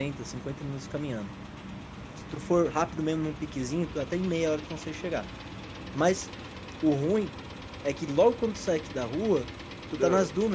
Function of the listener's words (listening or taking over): listening